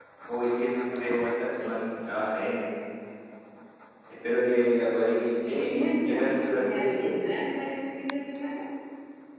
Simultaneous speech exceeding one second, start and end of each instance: 5.5-7.1

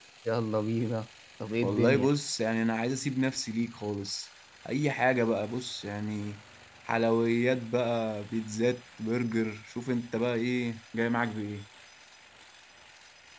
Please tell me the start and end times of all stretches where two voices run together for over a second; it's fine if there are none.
none

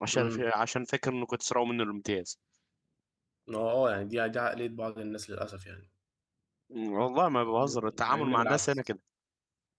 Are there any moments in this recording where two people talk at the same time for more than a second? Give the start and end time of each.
7.5-8.8

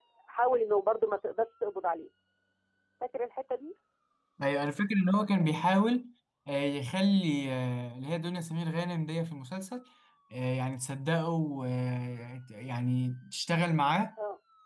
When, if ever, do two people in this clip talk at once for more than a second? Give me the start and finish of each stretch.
none

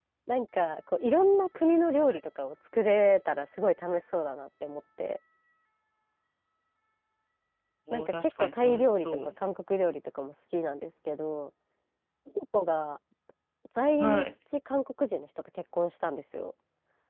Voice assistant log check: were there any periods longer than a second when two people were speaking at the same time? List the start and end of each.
7.9-9.3

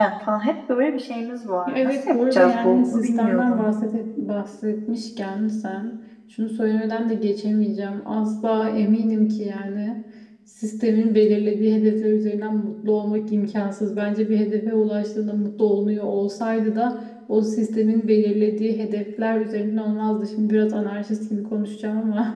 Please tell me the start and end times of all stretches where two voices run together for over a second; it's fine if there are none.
1.7-3.7

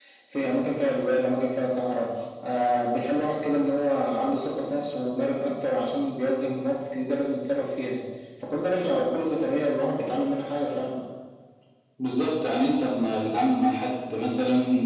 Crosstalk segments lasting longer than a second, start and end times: none

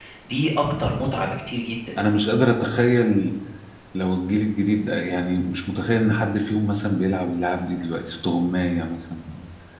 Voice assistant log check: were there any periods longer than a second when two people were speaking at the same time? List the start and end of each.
none

